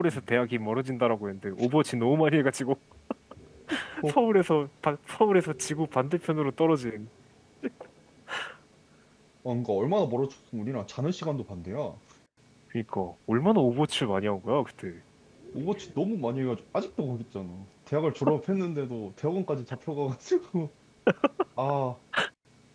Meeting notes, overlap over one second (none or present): none